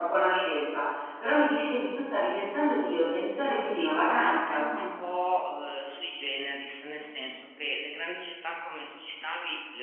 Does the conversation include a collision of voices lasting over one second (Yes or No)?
Yes